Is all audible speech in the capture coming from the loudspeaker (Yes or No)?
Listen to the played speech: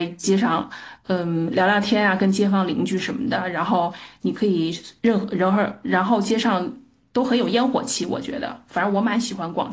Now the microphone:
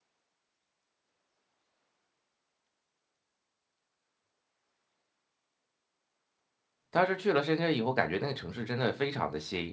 No